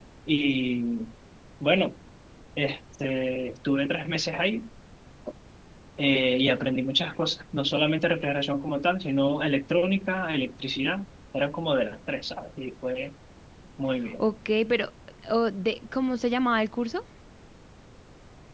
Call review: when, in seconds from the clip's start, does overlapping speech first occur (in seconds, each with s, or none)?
none